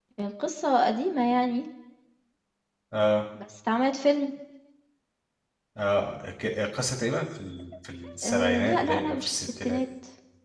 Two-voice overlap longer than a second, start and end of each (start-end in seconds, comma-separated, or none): 8.2-9.8